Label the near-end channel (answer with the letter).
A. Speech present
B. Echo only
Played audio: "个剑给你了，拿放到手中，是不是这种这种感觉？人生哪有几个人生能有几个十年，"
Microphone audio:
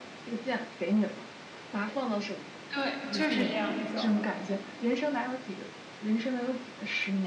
A